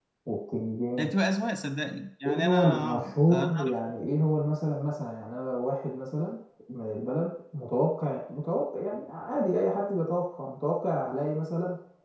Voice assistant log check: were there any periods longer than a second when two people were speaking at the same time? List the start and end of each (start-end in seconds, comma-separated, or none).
2.2-3.6